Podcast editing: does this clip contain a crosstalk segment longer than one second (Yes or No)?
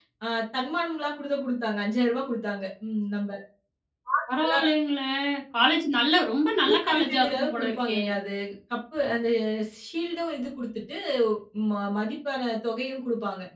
Yes